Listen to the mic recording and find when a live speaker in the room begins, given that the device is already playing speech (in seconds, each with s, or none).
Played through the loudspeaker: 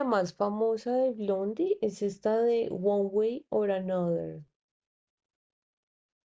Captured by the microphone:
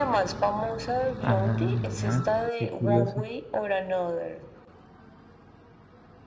1.2 s